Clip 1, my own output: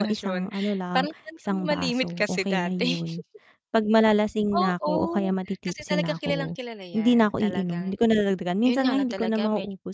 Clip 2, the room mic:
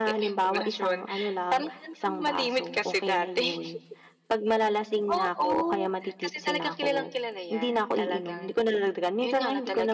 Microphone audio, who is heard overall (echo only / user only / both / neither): echo only